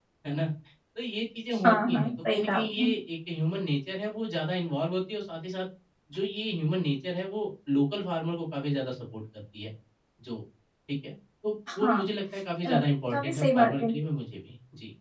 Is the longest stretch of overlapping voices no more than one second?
No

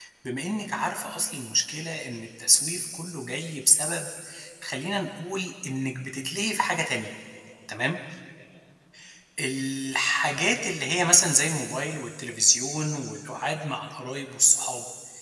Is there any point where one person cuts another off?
No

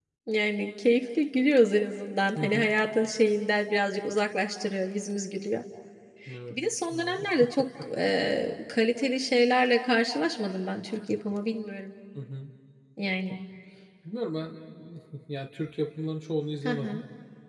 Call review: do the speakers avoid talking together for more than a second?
Yes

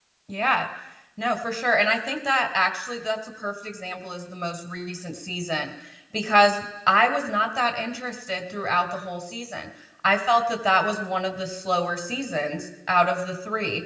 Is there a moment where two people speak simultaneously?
No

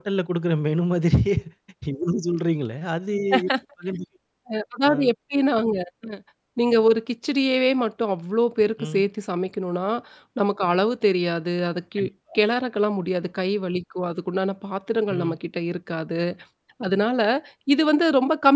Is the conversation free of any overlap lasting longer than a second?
Yes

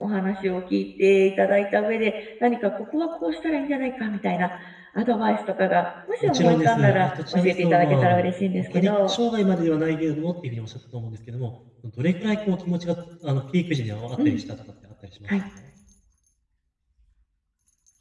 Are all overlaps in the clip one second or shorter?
No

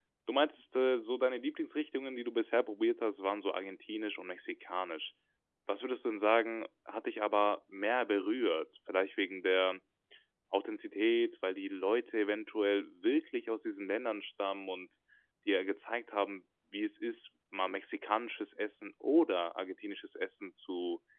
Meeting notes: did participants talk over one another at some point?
No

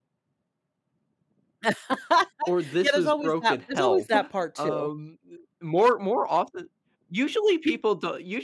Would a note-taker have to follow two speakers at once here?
Yes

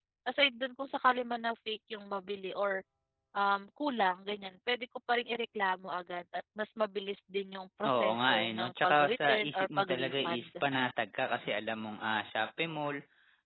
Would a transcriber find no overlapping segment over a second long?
No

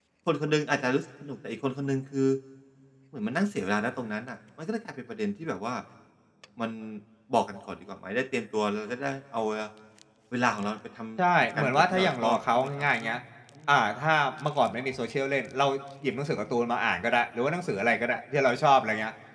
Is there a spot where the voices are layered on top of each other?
Yes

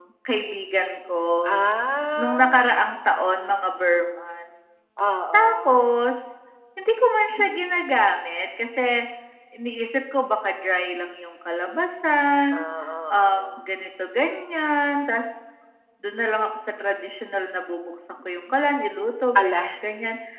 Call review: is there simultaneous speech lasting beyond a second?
No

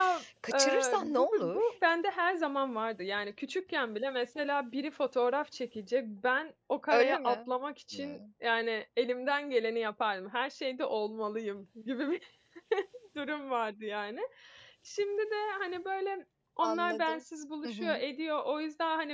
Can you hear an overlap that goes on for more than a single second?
Yes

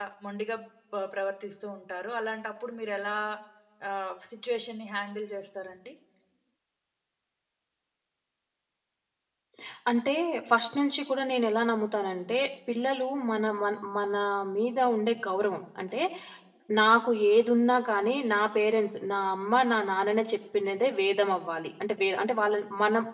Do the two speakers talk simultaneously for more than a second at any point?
No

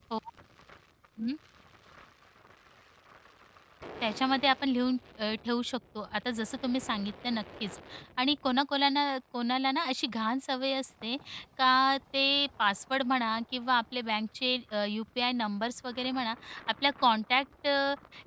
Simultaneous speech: No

